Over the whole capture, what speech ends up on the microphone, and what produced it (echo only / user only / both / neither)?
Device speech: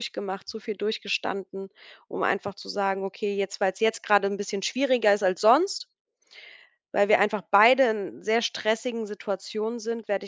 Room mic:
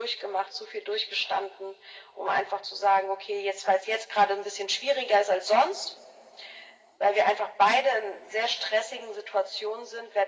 echo only